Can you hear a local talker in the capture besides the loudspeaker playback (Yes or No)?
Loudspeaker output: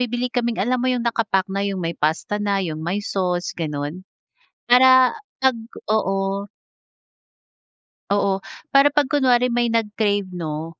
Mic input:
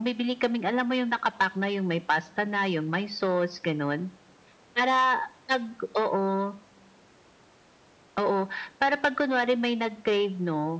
No